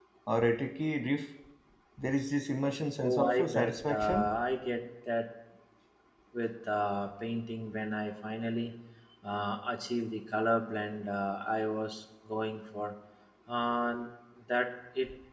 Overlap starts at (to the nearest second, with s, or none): 3 s